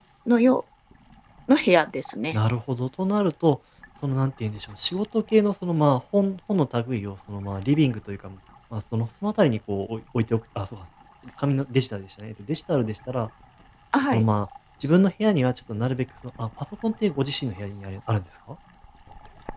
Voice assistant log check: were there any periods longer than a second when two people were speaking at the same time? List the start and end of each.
none

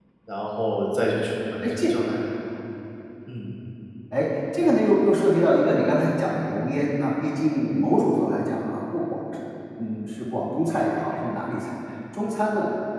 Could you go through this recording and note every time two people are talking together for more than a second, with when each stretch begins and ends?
none

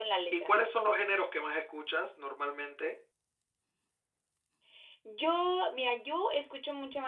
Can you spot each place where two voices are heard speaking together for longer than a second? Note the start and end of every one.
none

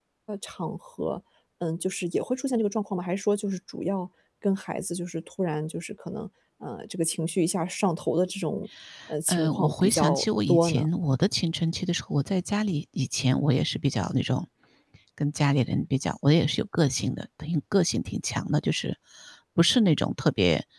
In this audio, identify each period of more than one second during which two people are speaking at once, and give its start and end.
9.3-10.9

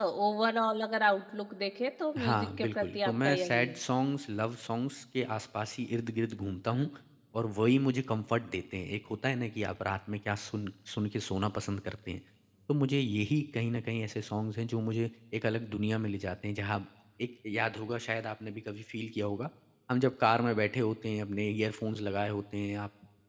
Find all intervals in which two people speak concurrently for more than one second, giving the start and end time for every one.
2.2-3.8

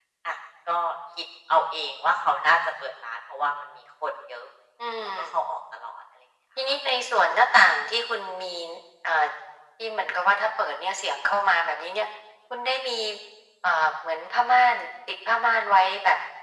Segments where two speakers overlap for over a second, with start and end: none

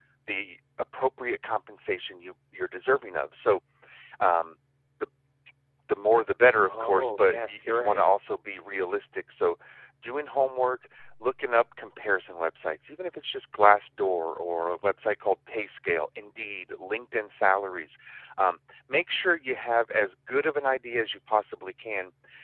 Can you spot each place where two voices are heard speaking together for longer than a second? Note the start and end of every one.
6.6-8.0

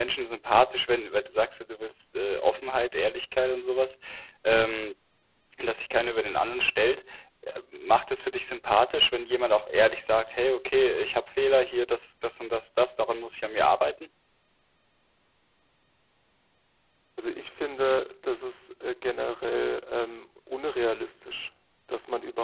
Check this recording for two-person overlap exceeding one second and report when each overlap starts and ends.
none

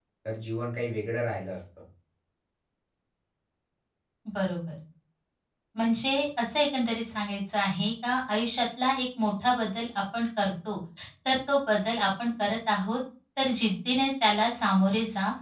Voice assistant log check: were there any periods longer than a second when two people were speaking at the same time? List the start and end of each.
none

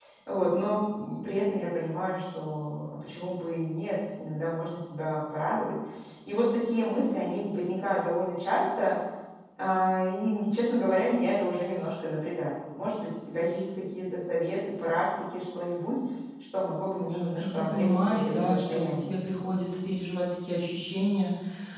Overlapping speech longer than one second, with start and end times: 16.9-19.2

